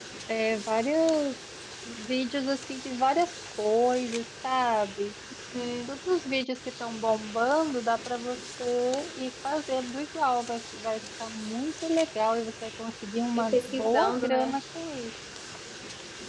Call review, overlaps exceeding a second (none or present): present